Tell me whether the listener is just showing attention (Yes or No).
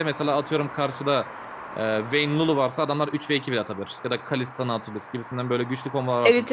Yes